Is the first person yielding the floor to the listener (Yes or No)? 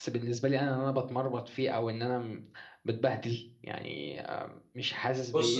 Yes